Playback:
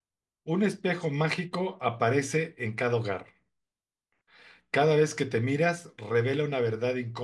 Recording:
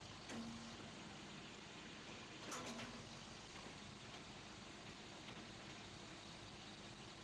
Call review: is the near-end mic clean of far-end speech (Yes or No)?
Yes